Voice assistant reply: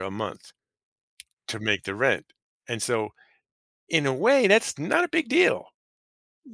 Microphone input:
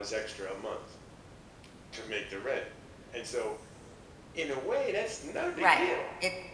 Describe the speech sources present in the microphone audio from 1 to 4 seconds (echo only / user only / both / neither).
echo only